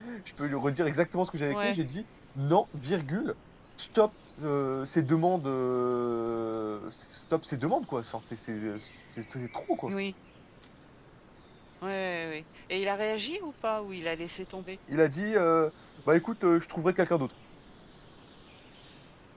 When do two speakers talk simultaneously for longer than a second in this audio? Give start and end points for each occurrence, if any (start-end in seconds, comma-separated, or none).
none